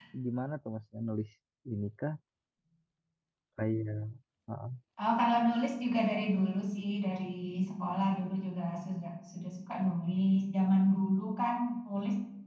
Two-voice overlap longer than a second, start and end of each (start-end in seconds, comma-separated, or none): none